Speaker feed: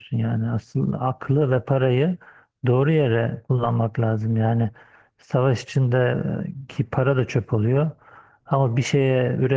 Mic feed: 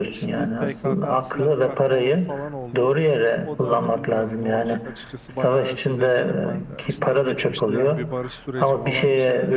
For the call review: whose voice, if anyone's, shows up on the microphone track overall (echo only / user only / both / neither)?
both